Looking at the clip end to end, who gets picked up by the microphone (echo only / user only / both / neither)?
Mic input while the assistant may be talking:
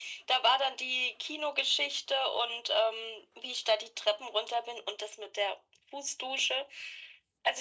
echo only